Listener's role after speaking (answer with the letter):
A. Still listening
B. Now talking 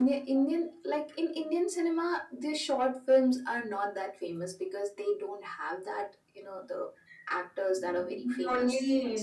B